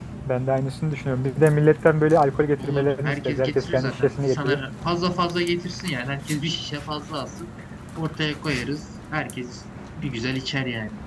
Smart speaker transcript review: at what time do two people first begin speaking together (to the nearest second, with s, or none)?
3 s